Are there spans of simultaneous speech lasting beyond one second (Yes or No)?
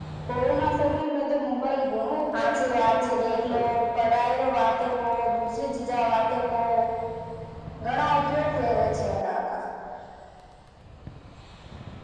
Yes